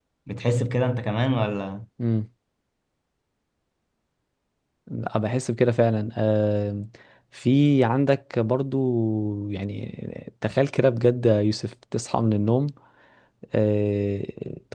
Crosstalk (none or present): none